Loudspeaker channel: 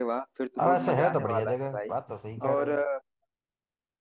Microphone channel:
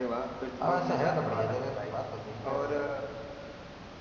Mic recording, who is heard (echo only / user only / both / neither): echo only